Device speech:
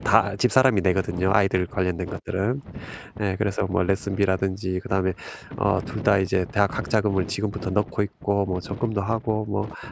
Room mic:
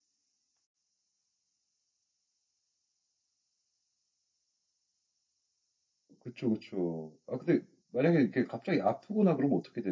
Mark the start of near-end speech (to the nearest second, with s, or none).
6 s